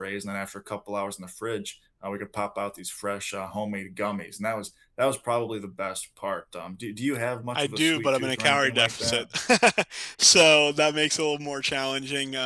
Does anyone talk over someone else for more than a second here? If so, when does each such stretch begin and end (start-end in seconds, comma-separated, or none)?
7.6-9.2